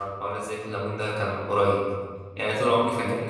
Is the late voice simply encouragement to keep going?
Yes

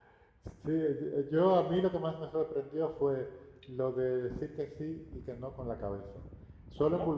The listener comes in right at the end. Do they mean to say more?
No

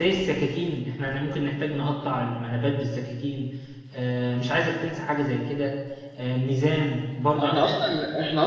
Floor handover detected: Yes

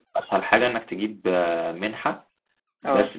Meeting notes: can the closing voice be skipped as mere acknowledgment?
Yes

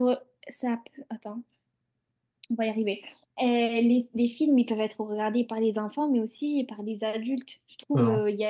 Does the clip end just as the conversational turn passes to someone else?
No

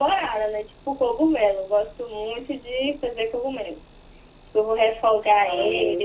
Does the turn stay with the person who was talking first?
Yes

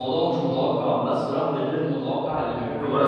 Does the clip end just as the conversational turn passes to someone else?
Yes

